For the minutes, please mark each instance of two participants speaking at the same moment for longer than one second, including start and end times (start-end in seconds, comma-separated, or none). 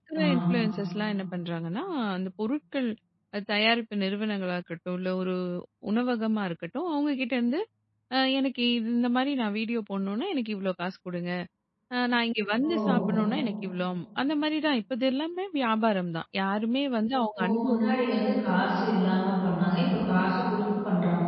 none